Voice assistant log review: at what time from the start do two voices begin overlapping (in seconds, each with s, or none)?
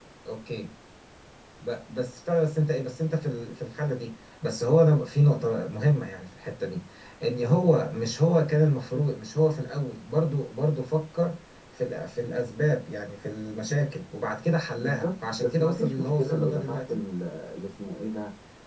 14.8 s